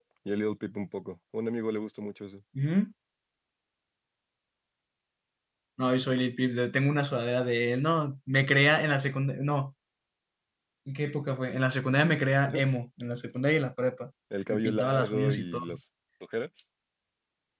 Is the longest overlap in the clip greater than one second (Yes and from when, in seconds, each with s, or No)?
Yes, from 14.5 s